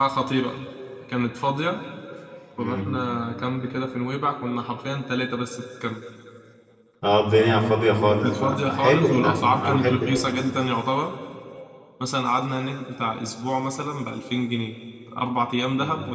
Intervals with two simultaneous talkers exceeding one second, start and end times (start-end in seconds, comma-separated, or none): 8.2-10.3